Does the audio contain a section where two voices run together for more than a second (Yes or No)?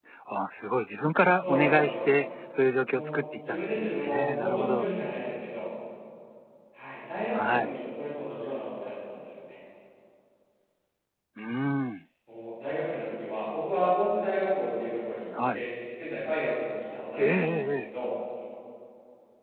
Yes